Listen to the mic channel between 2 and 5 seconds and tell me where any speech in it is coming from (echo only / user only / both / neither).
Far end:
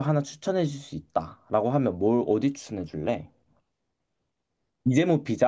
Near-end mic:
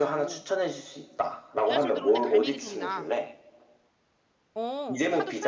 both